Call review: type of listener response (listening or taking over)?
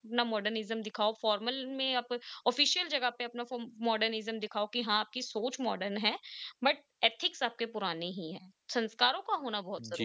taking over